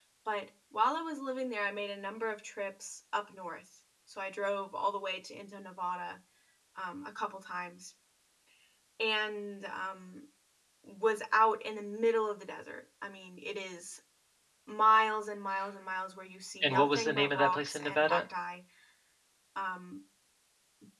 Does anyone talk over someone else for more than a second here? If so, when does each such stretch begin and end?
16.6-18.2

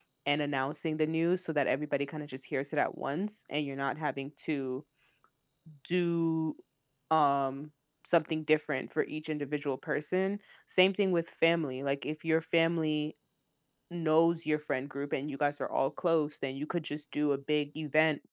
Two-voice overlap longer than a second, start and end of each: none

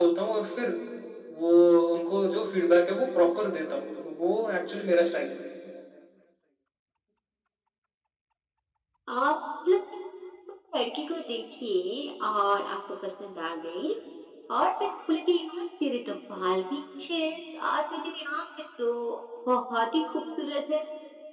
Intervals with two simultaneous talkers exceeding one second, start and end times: none

